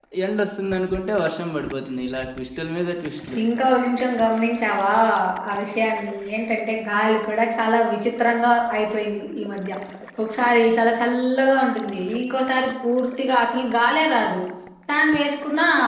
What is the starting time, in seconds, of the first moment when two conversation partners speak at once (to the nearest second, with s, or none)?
none